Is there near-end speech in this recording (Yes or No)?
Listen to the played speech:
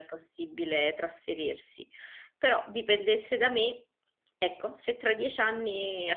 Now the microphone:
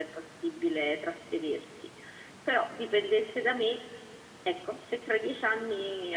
No